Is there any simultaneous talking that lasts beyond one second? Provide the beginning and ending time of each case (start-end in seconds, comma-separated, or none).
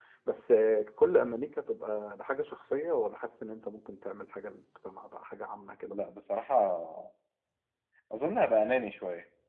none